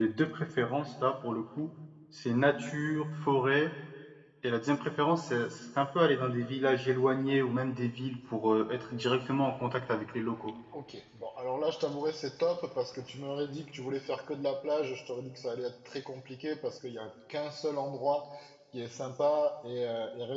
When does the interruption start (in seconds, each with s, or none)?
none